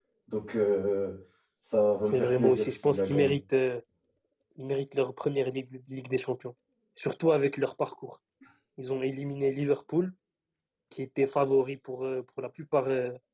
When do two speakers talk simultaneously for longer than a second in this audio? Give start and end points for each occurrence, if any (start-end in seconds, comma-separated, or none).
2.1-3.4